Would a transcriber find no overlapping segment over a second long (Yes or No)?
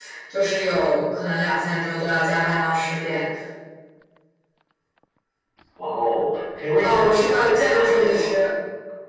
No